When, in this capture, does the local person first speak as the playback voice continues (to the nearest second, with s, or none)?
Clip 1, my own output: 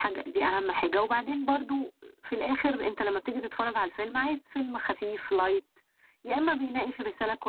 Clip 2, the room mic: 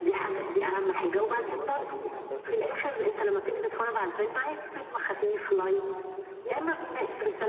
1 s